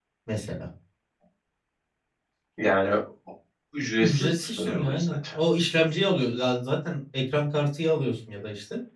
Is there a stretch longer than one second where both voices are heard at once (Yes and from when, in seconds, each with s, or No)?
Yes, from 4.0 s